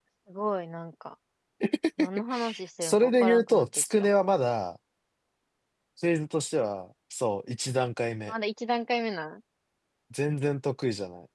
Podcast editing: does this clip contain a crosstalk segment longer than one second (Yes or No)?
Yes